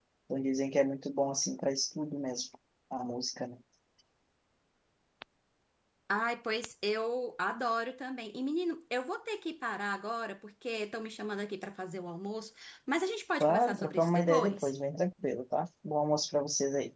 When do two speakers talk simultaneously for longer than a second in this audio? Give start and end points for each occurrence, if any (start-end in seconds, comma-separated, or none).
13.4-14.7